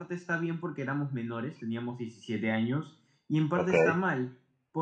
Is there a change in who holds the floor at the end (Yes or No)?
No